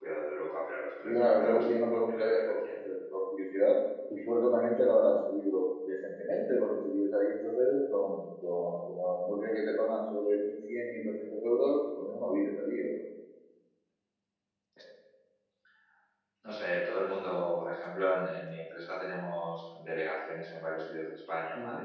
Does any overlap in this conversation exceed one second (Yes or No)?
Yes